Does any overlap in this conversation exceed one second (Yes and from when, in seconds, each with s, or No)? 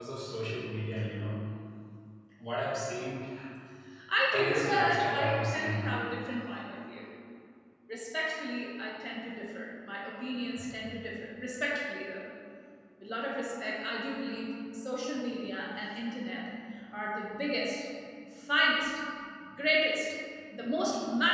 Yes, from 4.3 s